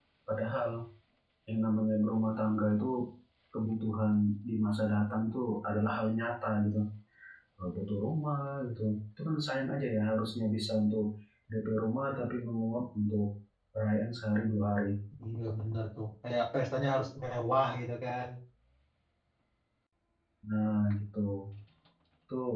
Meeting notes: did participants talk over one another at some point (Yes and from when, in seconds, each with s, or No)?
No